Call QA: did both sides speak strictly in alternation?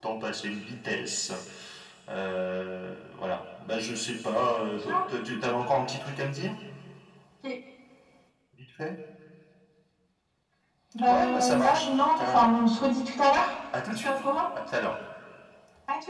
No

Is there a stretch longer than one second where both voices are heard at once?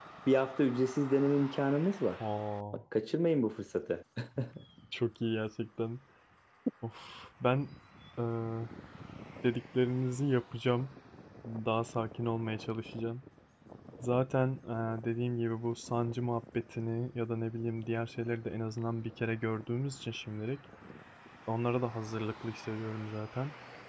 No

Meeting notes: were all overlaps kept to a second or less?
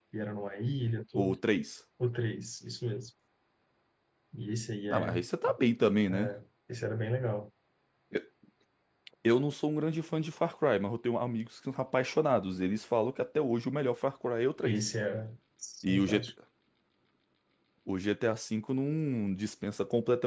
Yes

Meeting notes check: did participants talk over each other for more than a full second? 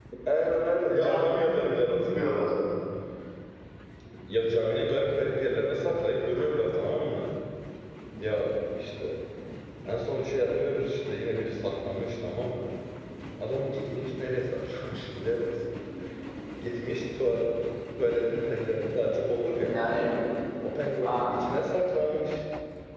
Yes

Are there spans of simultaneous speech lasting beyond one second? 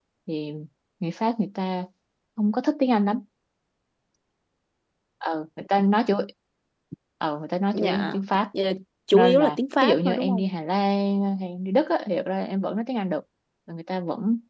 Yes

